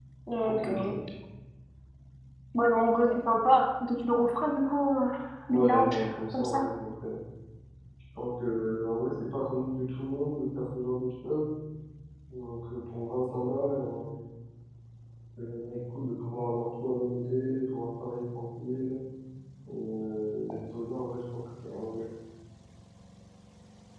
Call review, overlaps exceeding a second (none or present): present